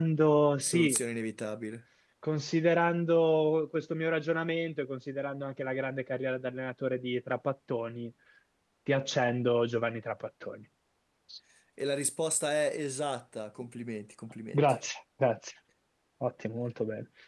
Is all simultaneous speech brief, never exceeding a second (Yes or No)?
Yes